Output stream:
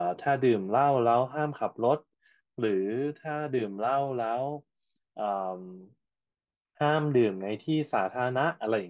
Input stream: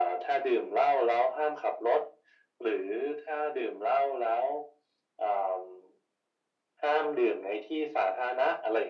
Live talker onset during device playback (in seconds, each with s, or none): none